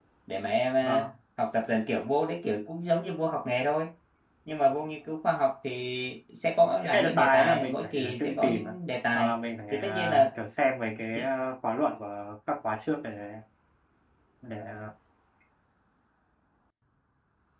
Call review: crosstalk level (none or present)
present